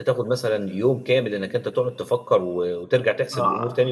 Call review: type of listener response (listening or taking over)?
taking over